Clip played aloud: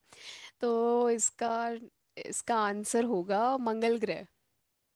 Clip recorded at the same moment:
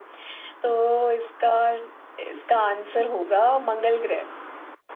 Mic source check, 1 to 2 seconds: echo only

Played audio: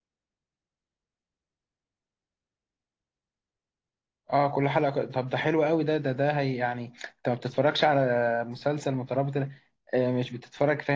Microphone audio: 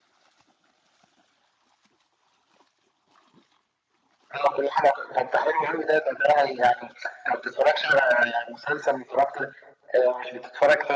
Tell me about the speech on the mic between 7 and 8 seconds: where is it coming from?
echo only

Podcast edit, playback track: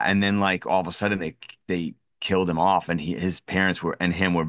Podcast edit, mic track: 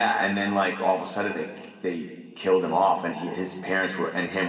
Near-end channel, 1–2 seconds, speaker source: echo only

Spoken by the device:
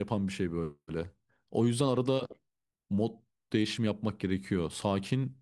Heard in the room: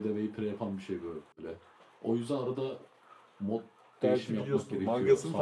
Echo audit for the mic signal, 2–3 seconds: echo only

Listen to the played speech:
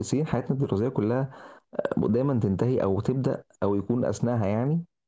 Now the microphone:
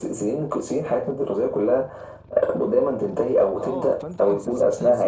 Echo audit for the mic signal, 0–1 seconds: echo only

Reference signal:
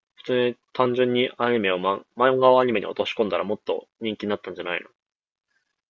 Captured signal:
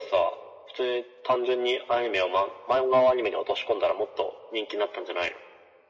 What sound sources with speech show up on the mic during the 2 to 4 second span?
echo only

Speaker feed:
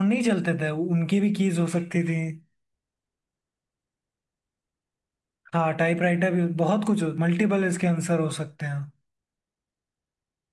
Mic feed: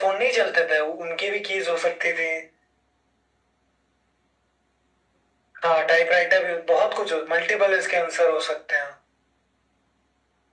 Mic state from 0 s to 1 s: echo only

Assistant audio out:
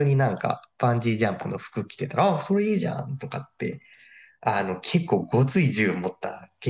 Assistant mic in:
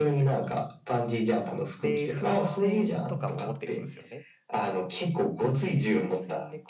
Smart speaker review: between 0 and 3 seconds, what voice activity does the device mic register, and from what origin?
both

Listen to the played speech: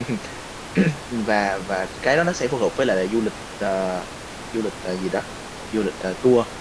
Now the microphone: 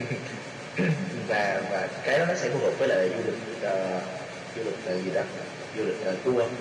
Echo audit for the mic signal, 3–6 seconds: echo only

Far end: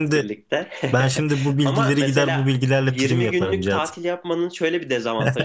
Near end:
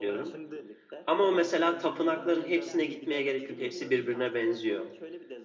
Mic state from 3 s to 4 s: both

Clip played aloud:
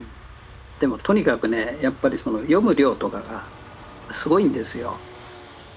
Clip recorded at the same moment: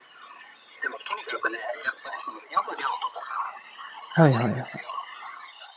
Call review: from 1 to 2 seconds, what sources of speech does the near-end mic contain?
echo only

